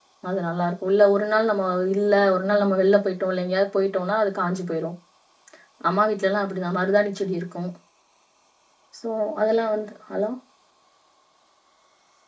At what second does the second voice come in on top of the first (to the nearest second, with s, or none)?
none